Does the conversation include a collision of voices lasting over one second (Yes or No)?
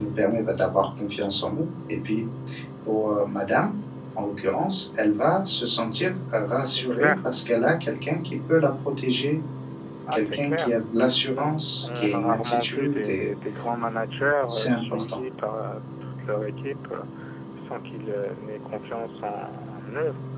Yes